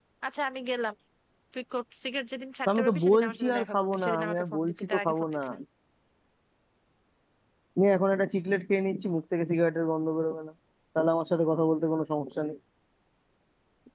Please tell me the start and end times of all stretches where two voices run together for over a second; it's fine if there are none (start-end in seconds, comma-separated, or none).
2.7-5.4